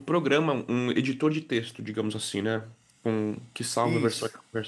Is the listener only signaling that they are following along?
Yes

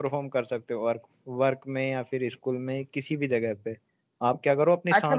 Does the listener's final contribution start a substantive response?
Yes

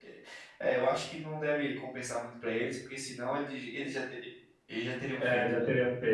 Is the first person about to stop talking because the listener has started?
Yes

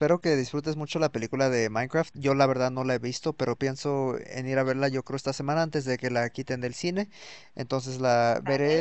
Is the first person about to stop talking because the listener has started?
No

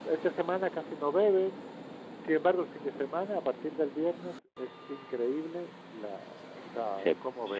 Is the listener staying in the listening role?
No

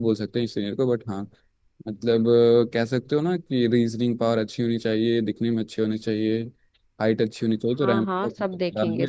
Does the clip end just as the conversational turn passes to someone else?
Yes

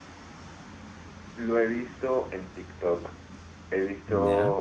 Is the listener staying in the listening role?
Yes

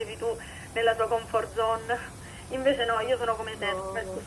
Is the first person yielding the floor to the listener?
No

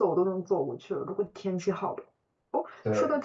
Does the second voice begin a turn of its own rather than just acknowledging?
No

